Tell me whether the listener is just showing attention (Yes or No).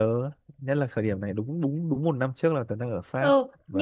No